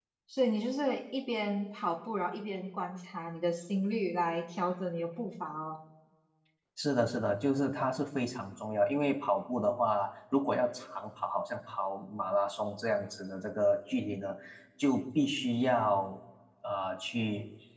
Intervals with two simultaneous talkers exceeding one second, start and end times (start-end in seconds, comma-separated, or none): none